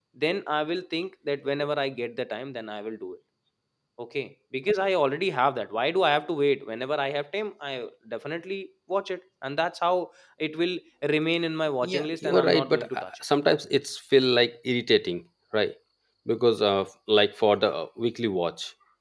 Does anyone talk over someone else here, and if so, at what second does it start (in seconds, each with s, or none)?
11.8 s